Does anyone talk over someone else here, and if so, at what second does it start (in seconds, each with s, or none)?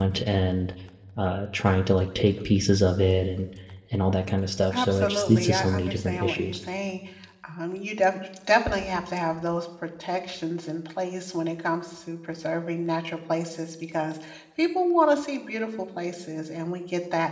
4.7 s